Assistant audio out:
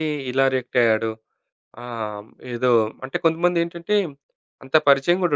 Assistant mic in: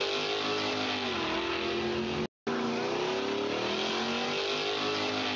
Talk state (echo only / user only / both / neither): neither